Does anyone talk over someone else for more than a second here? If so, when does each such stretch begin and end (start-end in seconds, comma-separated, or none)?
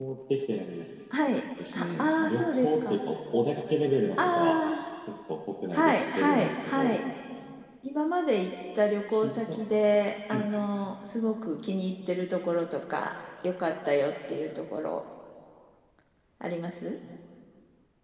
1.7-3.0, 5.7-7.0